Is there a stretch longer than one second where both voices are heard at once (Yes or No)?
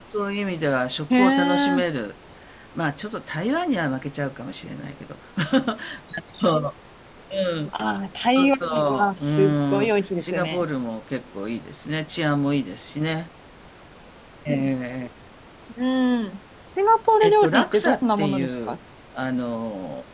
Yes